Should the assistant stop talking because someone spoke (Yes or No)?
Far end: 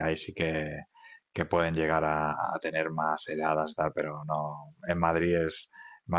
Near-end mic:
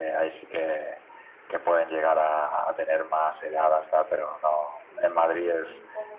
Yes